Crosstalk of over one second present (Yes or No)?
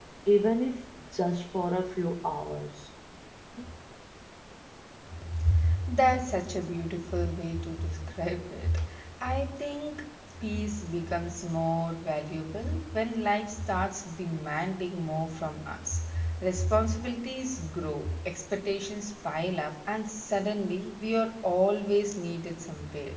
No